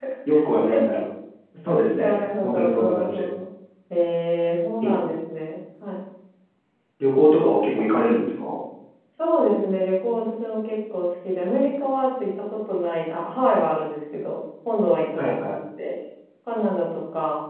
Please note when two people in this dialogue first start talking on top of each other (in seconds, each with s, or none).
2.0 s